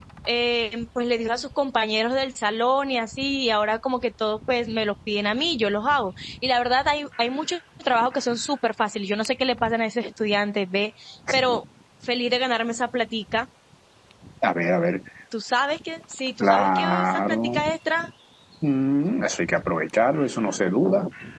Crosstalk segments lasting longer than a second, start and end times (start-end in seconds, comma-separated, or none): 16.4-17.6